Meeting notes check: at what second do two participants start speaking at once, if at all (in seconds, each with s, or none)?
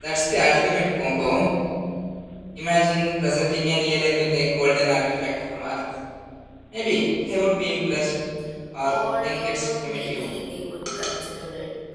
8.9 s